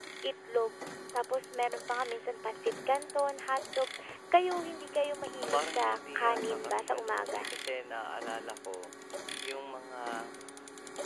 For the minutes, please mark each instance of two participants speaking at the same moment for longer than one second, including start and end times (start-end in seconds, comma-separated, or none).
5.5-7.5